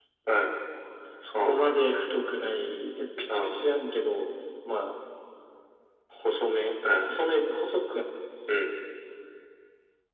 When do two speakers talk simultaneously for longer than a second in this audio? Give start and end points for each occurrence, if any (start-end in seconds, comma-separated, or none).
none